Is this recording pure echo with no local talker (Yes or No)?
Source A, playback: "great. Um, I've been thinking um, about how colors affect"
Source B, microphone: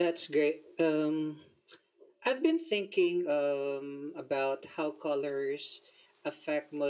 Yes